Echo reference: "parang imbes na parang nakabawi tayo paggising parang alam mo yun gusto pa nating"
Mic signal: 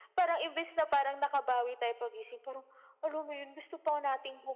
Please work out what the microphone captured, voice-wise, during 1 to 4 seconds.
echo only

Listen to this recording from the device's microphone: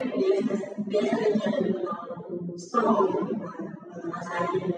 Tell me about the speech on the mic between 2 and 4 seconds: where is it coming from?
echo only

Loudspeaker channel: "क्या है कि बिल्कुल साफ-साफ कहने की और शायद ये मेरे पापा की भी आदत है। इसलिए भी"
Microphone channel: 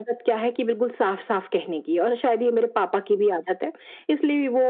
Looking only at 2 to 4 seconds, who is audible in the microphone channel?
echo only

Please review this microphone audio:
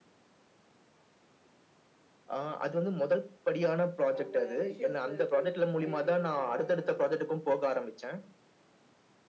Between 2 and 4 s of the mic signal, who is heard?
echo only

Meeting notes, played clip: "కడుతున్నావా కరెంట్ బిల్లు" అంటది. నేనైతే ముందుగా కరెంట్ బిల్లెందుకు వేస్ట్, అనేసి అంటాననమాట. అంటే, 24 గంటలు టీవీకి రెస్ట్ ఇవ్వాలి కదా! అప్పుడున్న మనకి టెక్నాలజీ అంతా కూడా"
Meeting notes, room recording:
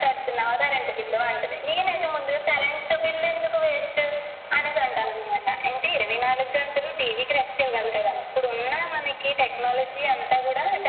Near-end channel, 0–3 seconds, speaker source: echo only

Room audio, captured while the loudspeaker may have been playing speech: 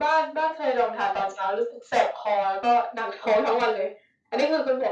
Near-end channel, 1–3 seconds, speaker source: echo only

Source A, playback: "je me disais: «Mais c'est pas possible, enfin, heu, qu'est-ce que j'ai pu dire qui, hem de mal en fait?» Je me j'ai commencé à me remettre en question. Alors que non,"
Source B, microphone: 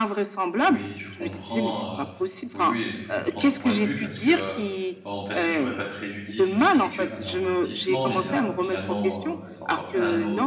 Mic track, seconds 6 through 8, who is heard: both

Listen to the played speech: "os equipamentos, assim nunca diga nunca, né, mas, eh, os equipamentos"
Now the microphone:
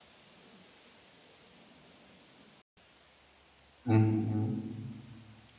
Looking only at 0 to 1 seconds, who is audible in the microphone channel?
neither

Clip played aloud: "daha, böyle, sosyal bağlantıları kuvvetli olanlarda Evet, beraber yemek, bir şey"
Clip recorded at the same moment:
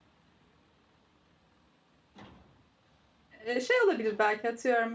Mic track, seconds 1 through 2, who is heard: neither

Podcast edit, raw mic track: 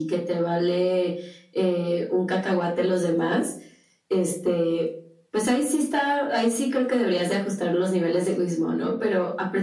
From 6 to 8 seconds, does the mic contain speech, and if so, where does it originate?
echo only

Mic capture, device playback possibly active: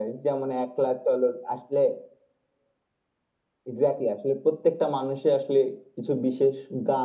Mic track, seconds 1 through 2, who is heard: echo only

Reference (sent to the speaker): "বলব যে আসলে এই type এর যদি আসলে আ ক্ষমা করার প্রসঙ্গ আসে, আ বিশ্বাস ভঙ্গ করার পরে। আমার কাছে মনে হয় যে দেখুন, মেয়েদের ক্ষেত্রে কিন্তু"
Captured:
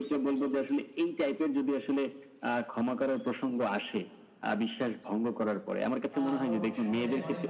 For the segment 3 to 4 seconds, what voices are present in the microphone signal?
echo only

